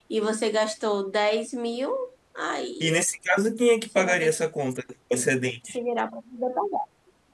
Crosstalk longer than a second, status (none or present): none